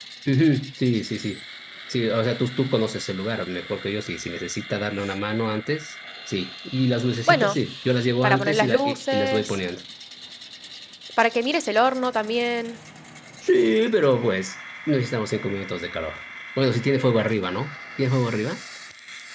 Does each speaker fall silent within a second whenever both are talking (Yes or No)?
No